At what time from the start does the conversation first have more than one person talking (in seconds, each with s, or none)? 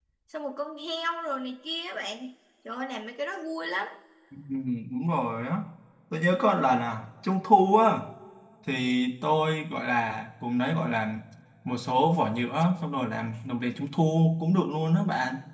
none